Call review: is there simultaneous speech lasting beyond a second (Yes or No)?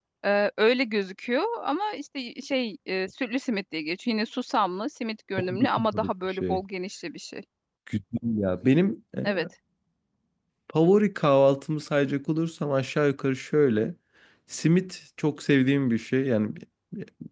Yes